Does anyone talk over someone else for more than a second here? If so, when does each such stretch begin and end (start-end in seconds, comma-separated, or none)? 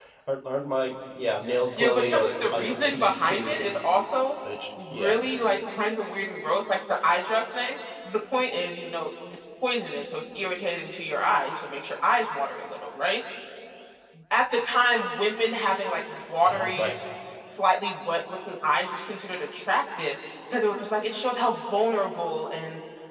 1.8-3.6